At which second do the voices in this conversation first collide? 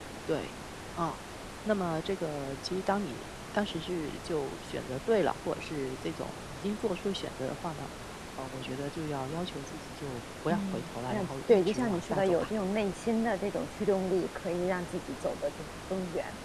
10.5 s

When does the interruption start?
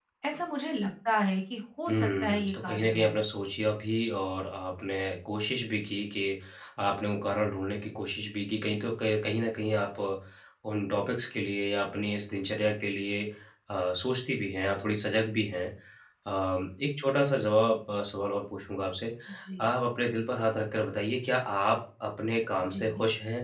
1.9 s

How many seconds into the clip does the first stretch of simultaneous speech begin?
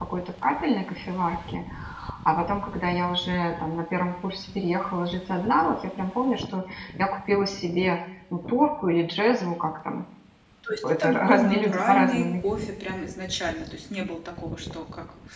10.9 s

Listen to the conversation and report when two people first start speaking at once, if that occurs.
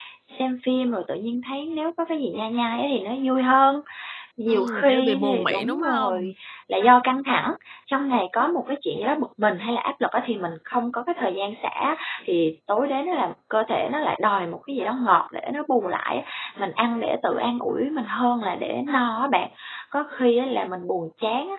4.5 s

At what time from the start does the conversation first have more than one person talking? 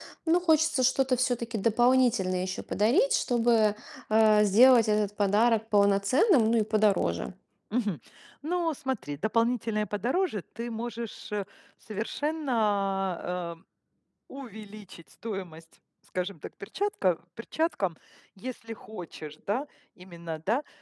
none

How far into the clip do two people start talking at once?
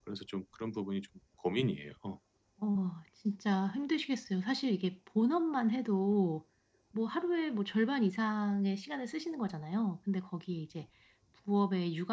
none

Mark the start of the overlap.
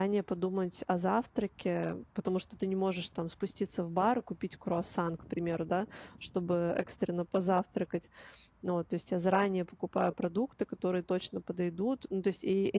none

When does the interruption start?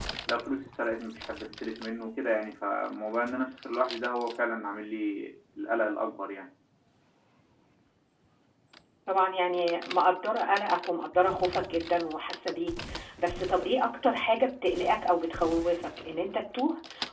none

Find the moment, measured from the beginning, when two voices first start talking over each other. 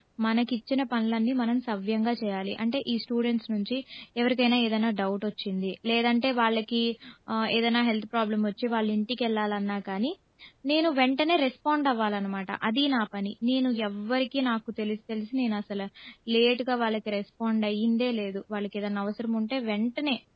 none

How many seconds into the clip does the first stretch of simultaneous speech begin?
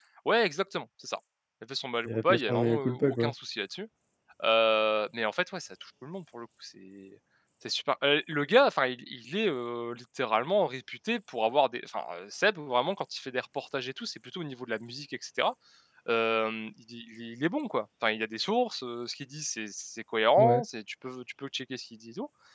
2.0 s

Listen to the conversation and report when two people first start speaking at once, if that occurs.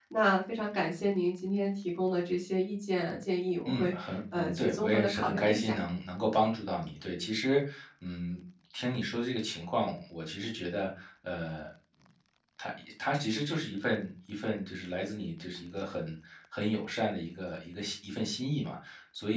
3.6 s

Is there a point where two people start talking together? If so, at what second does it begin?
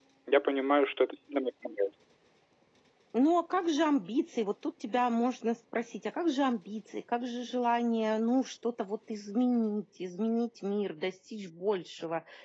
none

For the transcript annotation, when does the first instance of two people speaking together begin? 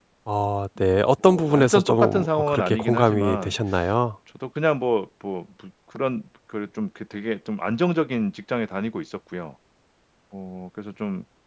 0.8 s

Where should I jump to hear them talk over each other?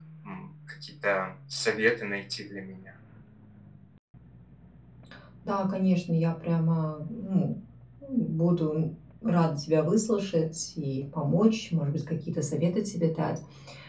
none

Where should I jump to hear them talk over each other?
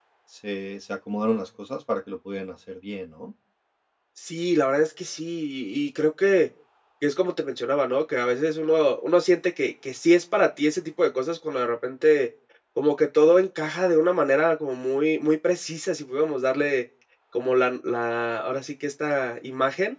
none

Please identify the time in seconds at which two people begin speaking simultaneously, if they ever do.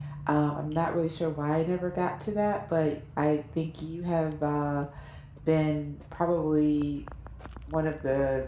none

